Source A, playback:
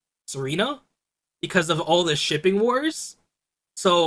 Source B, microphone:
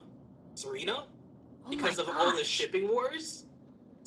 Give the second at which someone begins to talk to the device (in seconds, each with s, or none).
1.6 s